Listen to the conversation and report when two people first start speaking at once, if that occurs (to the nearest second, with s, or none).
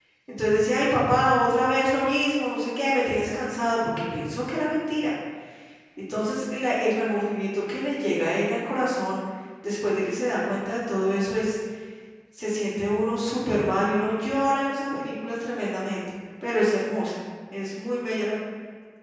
none